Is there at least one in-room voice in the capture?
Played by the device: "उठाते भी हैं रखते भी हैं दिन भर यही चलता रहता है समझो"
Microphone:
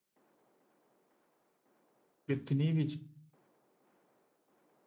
Yes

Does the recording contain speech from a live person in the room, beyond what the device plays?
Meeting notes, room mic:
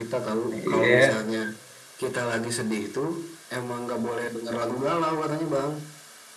Yes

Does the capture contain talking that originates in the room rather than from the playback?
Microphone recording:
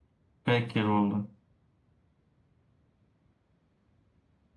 Yes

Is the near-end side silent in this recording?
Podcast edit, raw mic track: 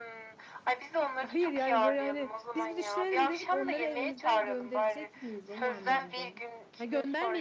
No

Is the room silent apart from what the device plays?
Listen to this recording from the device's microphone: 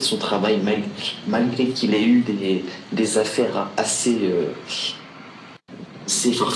Yes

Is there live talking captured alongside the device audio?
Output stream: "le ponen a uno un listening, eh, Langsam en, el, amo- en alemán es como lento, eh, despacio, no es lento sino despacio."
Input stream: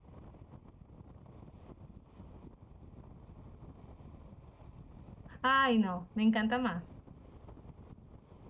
Yes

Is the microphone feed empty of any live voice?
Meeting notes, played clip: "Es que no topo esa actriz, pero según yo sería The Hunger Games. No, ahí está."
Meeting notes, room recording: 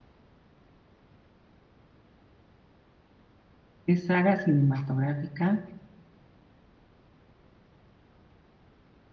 No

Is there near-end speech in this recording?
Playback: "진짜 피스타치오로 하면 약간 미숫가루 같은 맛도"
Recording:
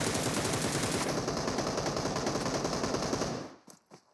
No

